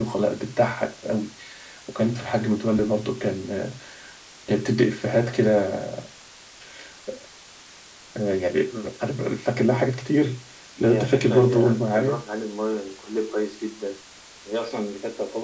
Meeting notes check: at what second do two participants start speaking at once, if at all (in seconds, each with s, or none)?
10.8 s